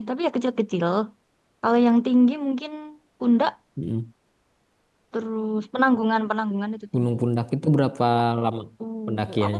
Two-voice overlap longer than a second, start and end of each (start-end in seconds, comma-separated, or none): none